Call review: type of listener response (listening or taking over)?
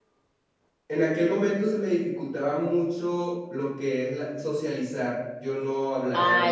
taking over